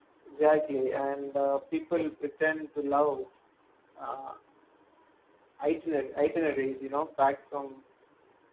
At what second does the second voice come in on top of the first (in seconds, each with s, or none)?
none